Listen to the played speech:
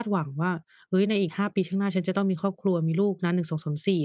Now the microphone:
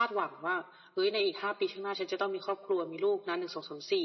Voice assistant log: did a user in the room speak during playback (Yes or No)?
No